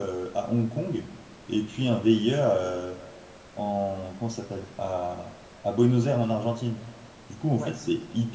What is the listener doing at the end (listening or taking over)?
listening